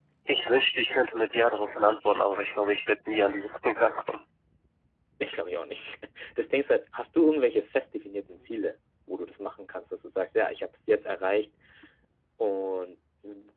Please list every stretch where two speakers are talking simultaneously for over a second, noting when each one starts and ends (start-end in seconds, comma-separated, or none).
none